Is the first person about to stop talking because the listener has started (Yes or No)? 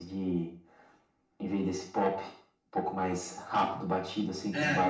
Yes